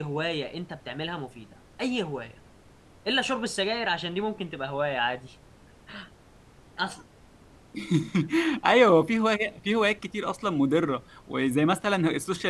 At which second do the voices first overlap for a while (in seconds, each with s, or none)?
none